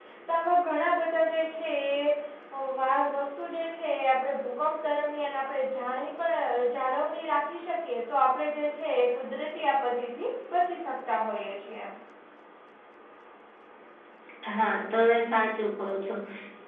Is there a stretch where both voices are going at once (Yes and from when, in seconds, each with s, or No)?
No